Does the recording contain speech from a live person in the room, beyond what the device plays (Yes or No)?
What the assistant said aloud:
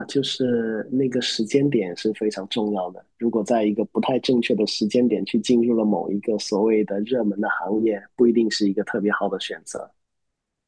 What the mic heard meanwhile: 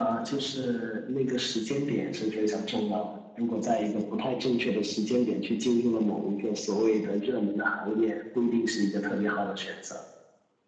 No